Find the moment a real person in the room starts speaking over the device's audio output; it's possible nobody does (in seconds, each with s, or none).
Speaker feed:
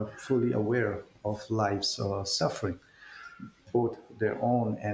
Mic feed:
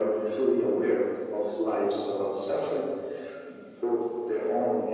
none